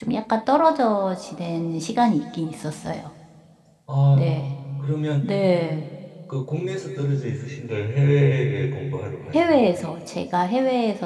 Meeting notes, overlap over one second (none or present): none